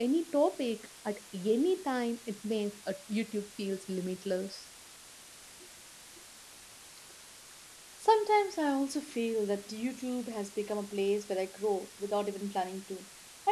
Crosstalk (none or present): none